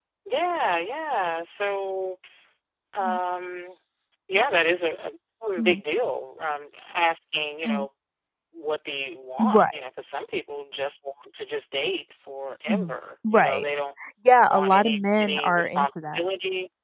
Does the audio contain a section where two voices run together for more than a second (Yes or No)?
Yes